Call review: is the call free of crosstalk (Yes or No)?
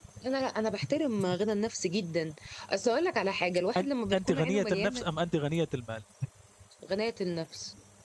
No